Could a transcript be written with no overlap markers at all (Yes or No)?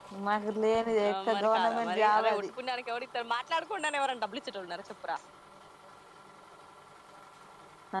No